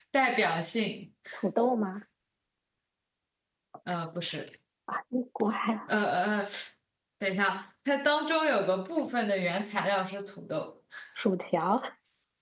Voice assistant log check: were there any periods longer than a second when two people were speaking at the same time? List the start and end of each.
none

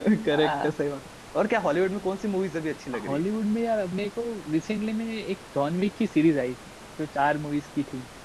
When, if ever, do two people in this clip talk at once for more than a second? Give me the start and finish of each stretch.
none

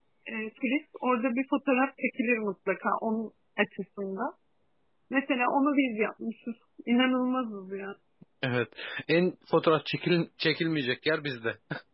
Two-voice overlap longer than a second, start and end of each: none

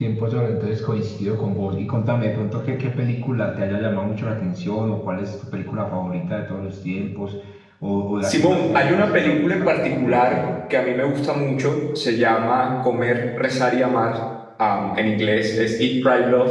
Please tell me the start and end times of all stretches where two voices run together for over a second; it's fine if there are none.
8.2-10.4

